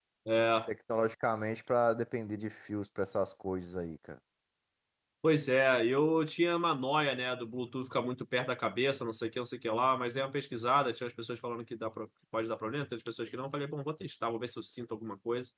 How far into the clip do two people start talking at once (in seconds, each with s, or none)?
none